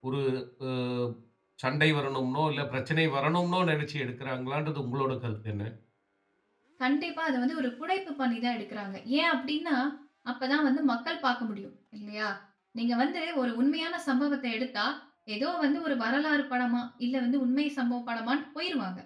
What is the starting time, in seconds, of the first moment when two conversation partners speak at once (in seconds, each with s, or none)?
none